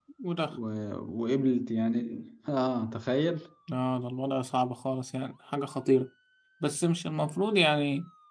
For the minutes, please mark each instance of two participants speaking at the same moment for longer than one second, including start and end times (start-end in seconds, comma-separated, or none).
none